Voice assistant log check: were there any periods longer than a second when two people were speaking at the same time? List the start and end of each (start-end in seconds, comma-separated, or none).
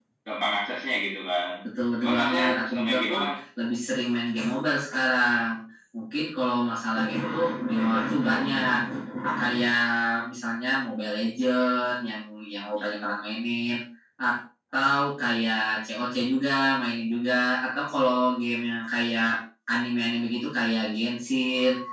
2.0-3.3